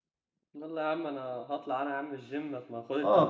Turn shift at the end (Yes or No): Yes